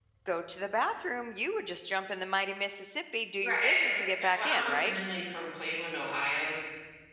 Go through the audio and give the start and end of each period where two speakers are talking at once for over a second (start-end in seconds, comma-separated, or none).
3.4-4.9